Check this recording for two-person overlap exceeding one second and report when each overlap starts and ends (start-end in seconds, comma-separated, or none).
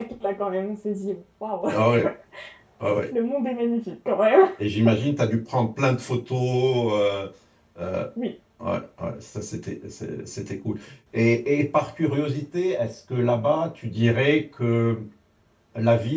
none